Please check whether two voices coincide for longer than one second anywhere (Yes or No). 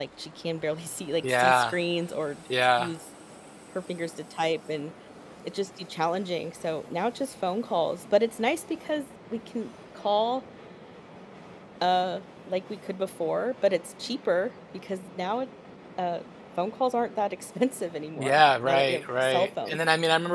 Yes